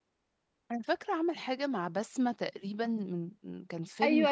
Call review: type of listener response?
taking over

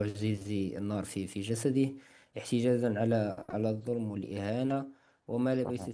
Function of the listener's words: listening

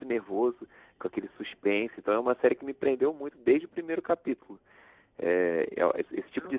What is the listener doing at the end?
listening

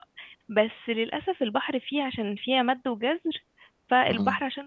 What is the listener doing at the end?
listening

